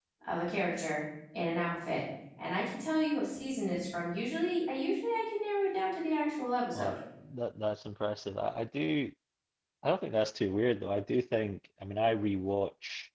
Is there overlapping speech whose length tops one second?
No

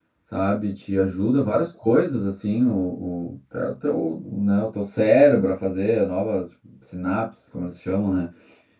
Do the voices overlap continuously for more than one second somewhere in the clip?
No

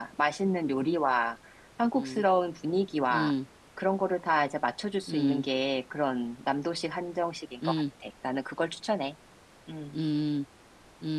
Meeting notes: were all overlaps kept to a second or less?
Yes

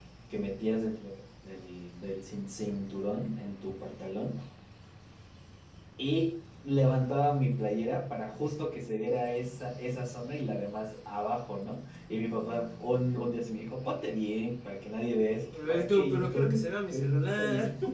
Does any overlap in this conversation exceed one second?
Yes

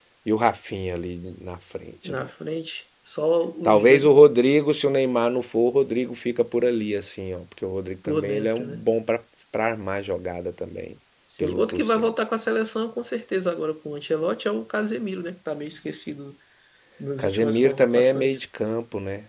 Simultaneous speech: Yes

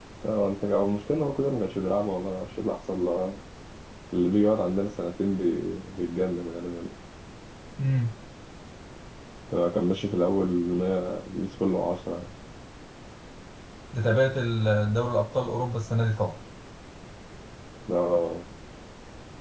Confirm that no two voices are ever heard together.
Yes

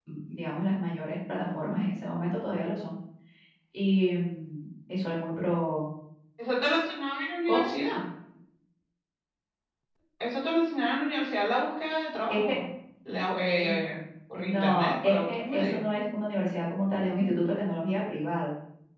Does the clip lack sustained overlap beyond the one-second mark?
No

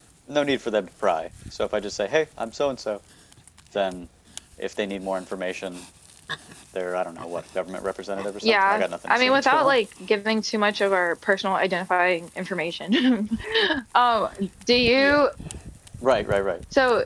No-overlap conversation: No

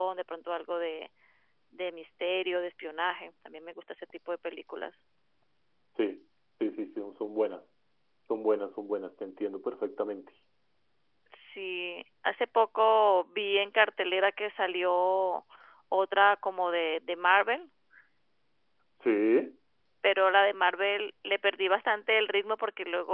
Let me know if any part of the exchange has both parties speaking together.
No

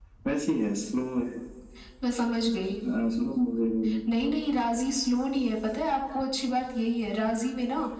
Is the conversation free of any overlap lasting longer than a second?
Yes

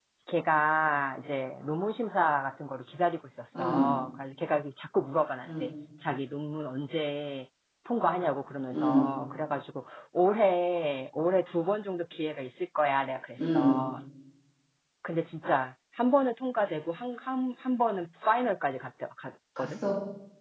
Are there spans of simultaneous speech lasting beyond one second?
No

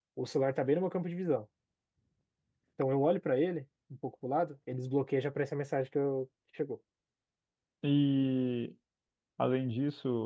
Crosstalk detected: No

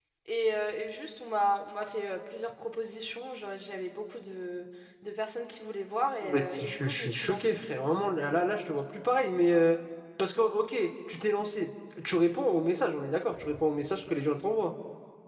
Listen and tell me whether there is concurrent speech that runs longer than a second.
Yes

